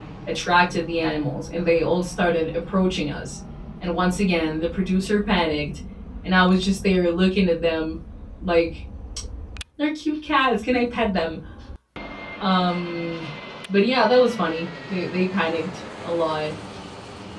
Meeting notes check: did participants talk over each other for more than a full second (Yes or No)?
No